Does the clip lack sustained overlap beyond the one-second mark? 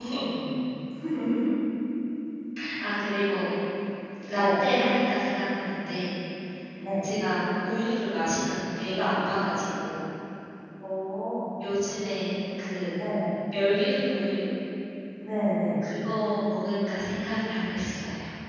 Yes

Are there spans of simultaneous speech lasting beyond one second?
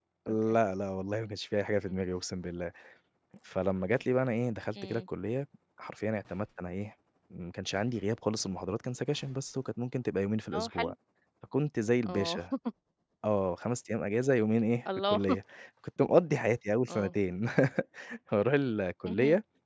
No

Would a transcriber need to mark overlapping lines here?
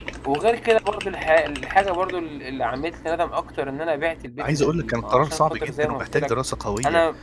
Yes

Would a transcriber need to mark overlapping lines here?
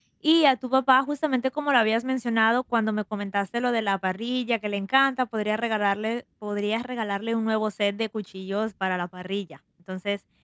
No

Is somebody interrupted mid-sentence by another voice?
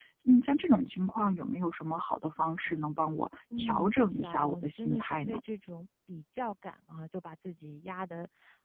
Yes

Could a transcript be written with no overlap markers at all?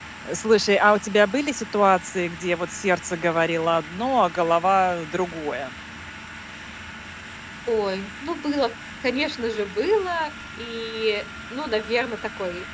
Yes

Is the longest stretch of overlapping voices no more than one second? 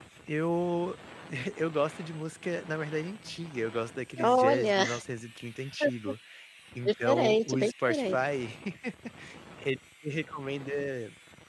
No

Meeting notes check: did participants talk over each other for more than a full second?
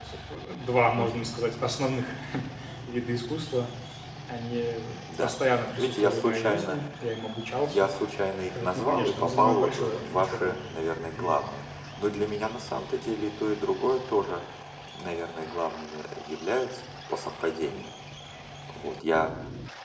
Yes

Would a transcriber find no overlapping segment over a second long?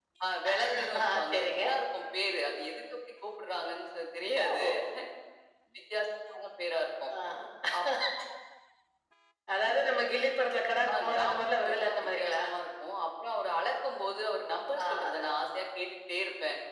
No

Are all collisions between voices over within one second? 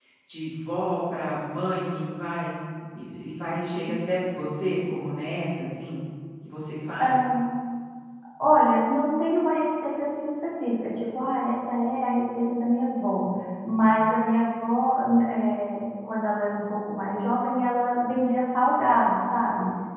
Yes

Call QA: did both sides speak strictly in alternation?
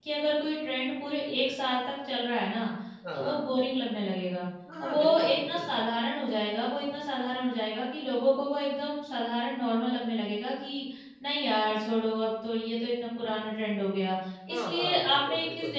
No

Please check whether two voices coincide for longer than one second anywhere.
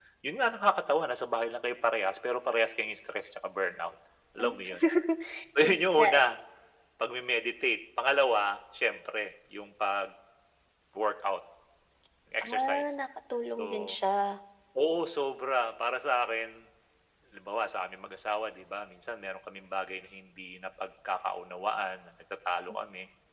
No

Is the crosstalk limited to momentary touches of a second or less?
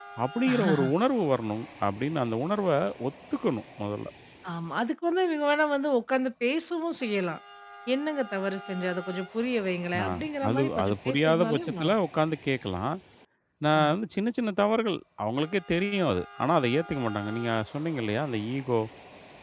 No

